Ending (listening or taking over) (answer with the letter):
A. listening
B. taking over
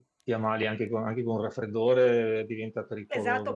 B